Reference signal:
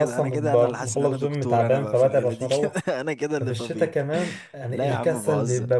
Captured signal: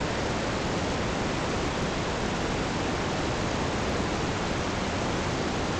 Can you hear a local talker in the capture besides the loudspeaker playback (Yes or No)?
No